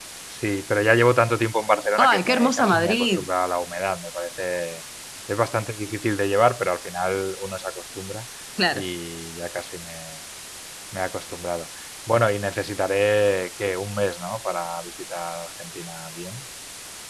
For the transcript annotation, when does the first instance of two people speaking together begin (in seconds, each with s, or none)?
2.0 s